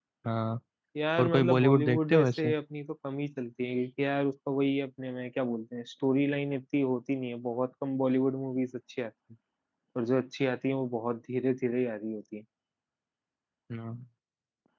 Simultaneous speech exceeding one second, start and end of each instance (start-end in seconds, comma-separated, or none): 1.2-2.5